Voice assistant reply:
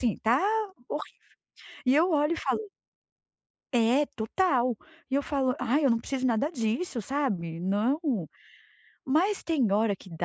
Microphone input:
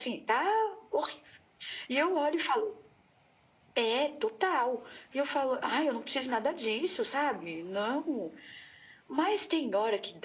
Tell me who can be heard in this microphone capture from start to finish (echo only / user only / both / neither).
echo only